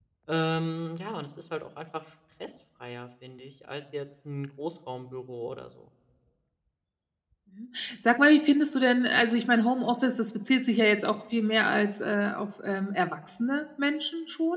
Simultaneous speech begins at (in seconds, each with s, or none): none